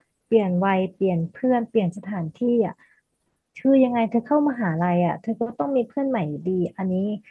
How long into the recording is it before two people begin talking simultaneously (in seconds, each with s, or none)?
none